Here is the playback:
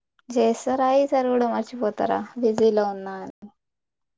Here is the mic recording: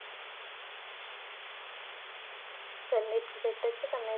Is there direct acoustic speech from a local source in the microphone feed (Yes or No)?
Yes